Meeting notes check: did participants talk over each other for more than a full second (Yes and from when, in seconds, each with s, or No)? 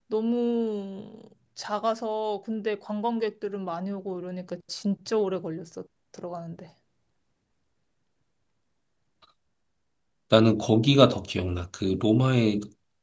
No